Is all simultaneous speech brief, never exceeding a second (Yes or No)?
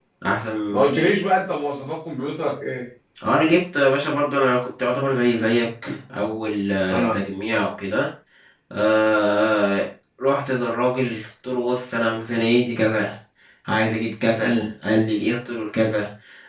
Yes